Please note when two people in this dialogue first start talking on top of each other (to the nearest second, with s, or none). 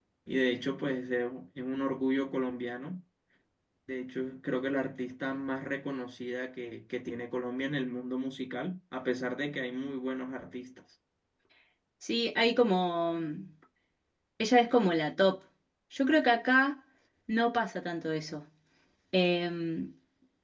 none